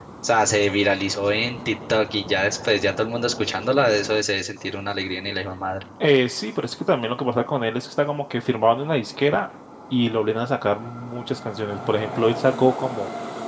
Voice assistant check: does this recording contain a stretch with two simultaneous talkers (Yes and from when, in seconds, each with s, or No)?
No